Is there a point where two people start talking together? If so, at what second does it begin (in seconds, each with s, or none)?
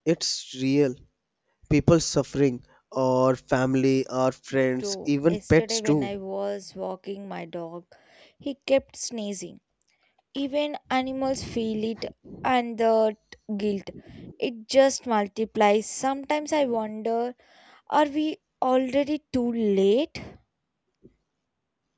4.8 s